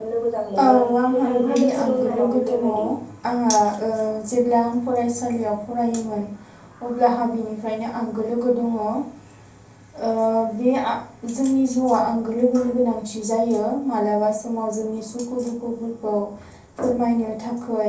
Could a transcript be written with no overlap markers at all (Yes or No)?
No